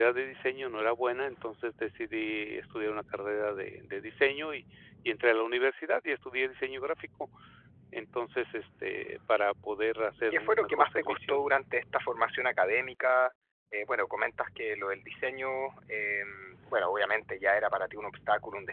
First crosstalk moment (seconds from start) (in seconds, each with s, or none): 10.3 s